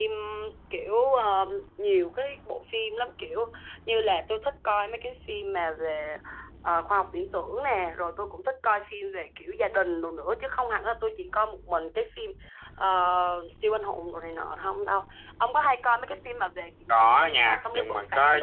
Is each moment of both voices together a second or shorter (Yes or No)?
No